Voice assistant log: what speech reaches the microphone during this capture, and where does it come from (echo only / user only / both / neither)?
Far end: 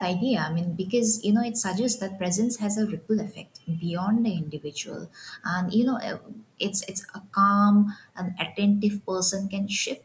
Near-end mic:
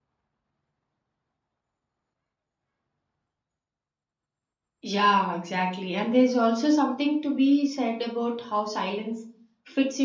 user only